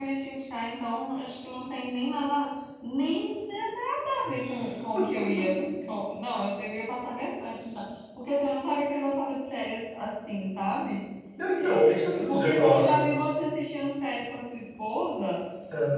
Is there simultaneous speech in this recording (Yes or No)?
Yes